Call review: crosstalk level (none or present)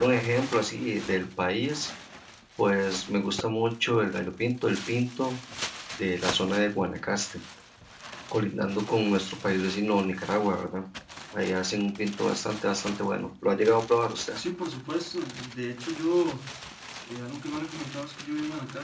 none